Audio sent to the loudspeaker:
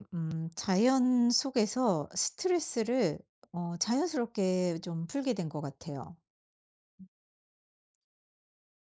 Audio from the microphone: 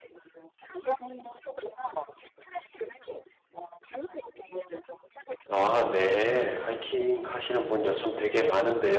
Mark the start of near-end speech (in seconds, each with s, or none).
5.5 s